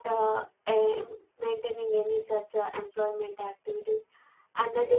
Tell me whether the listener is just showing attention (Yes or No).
Yes